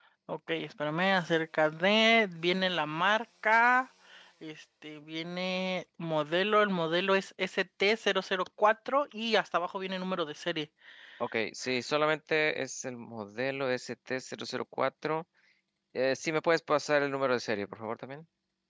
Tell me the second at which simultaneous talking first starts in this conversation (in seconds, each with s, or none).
none